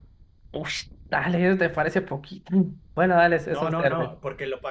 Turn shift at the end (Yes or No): Yes